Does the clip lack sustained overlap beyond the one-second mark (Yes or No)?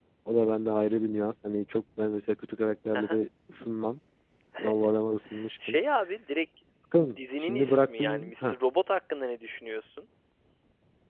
No